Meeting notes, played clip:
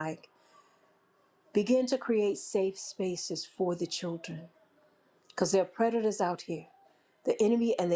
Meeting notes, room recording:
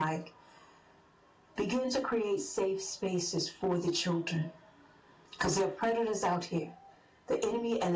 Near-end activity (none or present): none